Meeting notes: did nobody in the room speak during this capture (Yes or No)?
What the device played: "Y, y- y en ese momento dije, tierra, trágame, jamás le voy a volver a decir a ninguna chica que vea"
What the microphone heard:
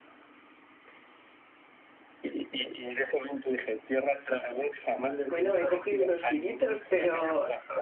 No